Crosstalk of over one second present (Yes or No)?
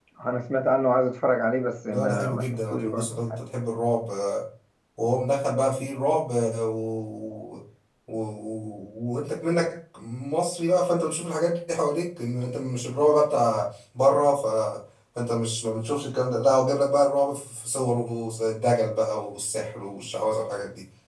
Yes